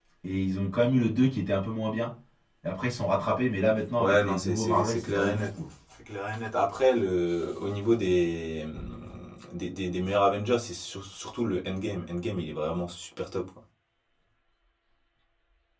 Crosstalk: present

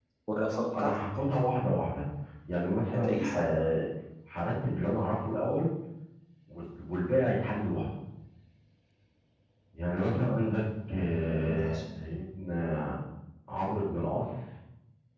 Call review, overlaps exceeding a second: none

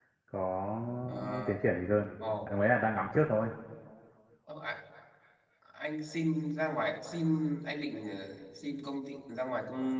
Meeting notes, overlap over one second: none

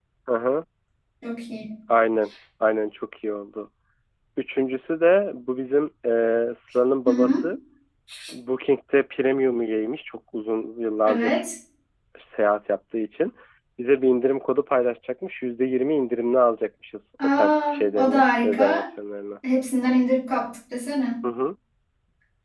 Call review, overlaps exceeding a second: present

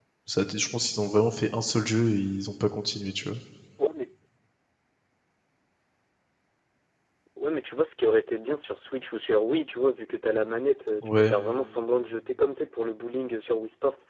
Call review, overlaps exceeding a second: none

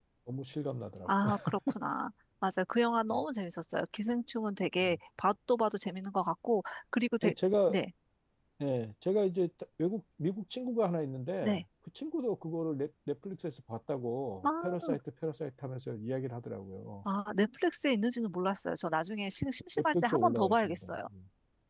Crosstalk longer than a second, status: present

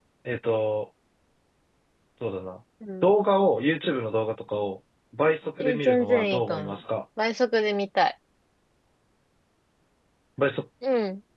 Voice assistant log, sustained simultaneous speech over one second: present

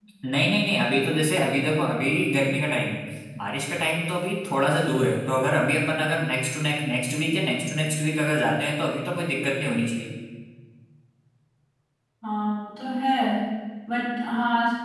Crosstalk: none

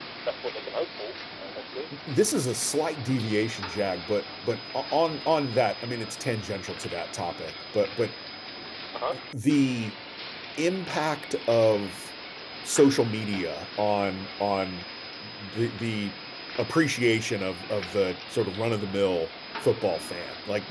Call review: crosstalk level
none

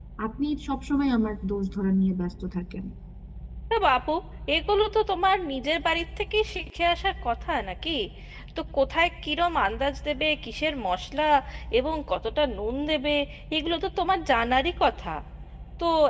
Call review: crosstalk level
none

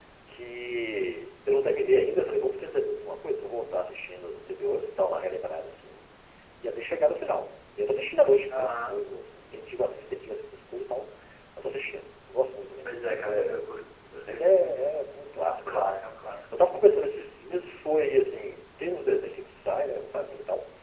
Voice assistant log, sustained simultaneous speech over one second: none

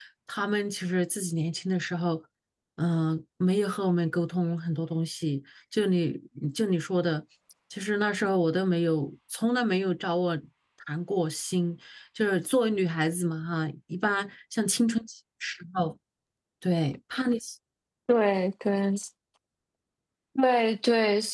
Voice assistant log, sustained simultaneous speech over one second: none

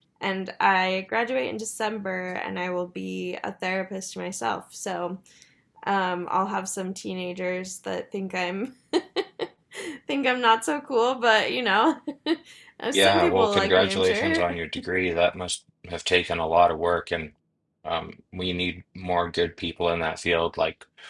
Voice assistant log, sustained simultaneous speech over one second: present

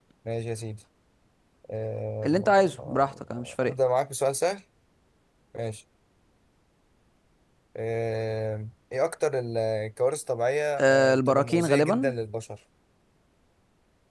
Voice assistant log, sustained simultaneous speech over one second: present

